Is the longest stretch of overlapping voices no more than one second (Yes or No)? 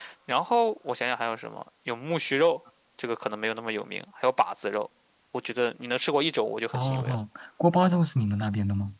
Yes